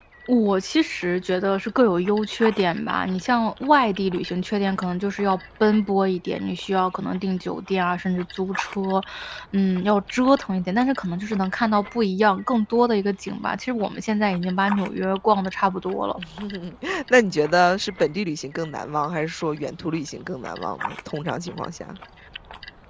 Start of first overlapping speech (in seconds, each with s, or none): none